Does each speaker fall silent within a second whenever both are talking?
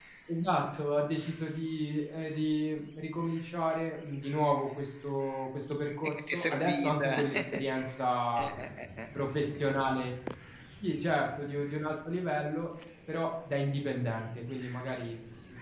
No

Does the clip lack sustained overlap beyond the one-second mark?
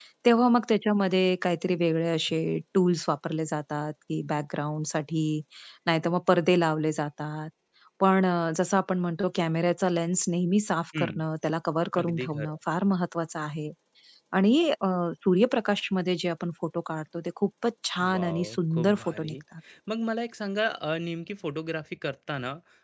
No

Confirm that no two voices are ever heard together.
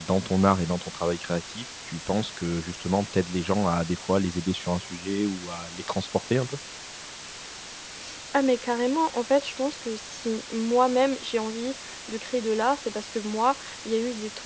Yes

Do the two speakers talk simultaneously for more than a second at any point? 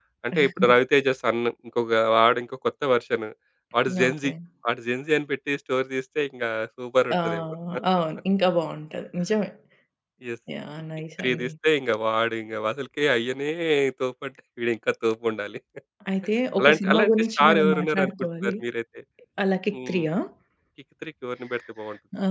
Yes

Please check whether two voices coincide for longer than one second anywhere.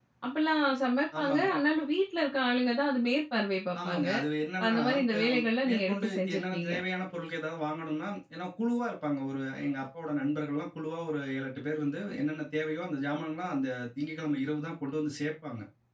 Yes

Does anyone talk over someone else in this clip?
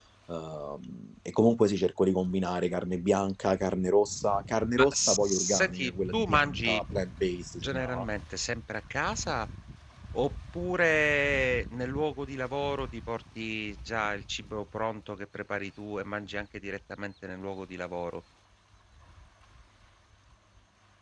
Yes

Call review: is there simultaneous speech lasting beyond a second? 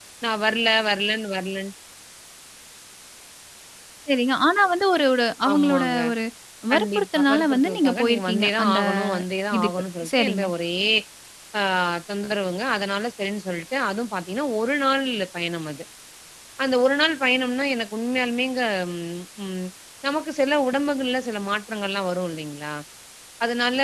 Yes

